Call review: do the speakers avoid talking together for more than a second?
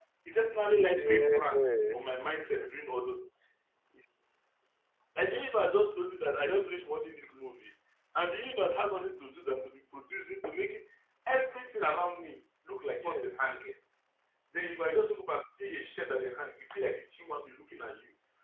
No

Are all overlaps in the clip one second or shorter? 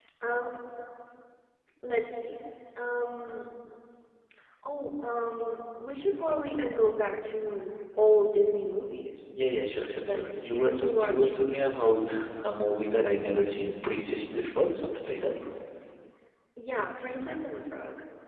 No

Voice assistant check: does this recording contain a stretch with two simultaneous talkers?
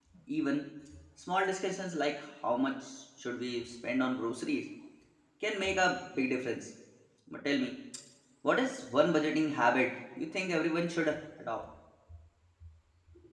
No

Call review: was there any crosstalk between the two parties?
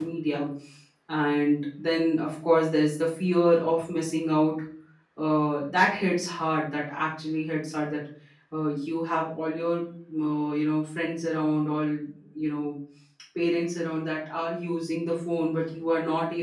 No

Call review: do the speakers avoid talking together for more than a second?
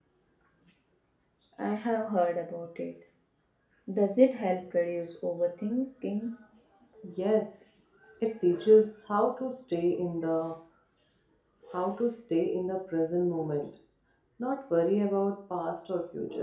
Yes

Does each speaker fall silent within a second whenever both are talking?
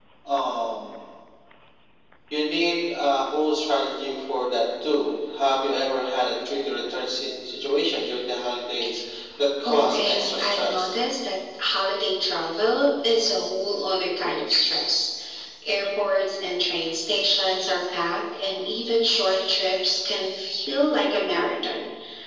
No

